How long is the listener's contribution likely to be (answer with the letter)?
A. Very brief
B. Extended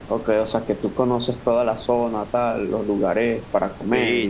B